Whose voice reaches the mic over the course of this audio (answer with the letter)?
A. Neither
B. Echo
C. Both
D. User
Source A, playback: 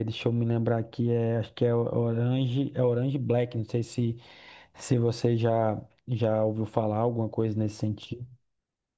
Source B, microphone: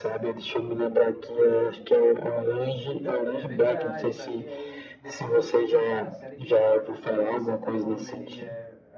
C